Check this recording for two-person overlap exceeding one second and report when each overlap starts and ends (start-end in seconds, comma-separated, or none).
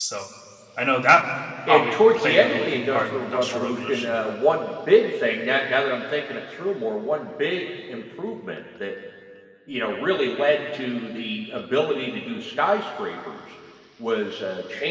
1.7-4.2